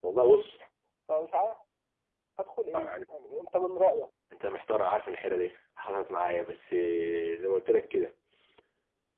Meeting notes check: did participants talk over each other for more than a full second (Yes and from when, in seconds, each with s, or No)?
No